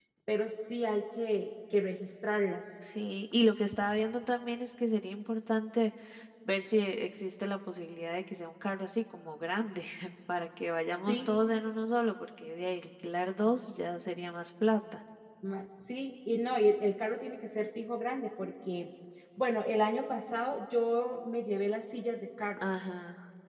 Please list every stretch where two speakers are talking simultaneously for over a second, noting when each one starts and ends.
none

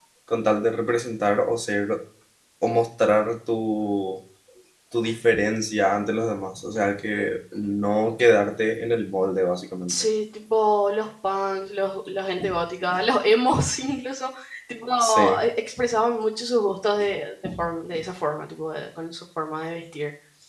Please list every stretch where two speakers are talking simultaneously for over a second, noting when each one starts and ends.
none

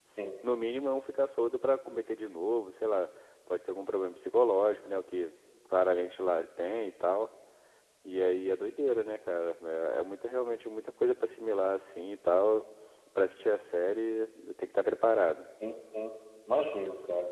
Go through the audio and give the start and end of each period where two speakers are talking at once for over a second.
none

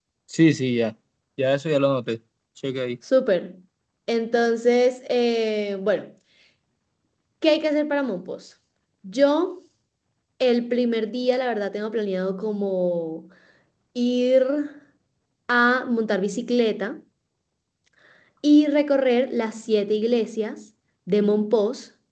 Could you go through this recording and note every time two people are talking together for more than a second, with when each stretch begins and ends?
none

